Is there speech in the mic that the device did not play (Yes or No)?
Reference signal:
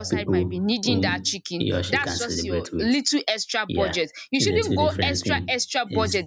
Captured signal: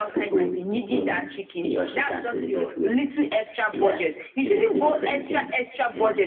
No